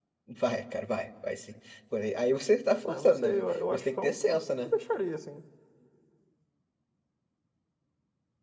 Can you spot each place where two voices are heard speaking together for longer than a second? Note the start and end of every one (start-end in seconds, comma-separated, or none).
2.9-4.7